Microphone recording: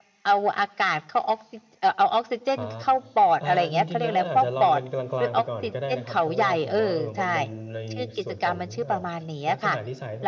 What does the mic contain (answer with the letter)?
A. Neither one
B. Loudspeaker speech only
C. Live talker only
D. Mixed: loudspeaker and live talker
D